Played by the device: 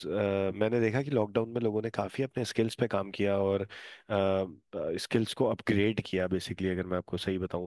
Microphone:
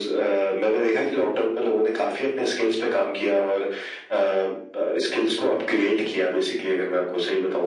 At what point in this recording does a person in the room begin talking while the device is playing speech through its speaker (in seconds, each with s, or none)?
none